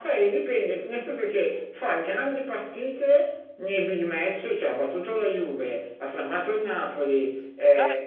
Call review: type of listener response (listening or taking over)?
listening